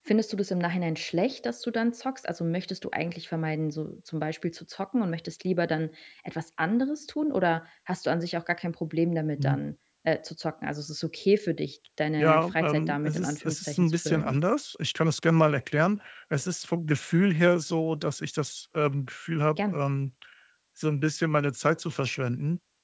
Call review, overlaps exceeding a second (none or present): present